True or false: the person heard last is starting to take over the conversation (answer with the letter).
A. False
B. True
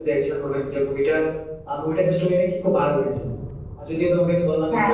A